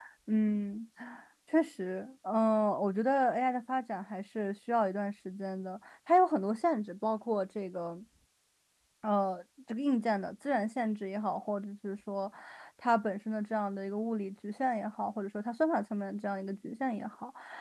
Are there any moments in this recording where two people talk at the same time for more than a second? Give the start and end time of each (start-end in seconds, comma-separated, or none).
none